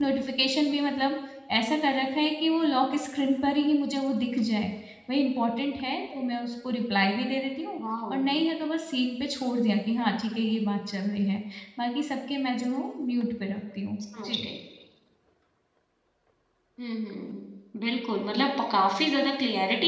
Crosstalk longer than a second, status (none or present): none